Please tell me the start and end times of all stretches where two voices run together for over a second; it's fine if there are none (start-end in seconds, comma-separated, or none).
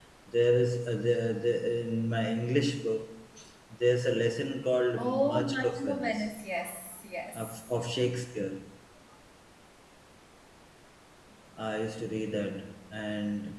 5.0-6.2